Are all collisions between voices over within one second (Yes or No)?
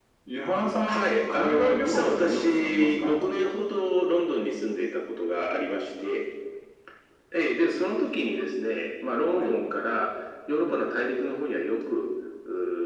No